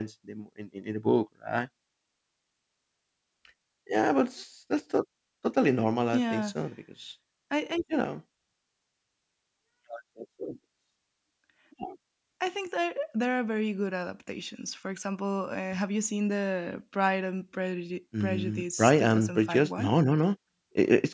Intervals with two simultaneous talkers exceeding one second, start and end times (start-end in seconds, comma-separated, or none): 18.2-19.9